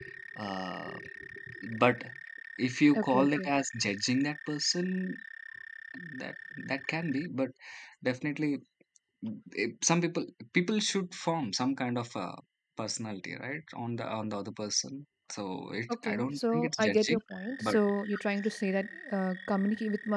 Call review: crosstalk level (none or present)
present